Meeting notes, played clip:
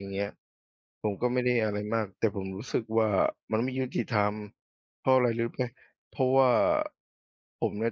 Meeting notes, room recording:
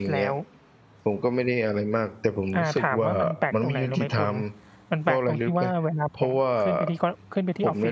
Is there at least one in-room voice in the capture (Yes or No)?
Yes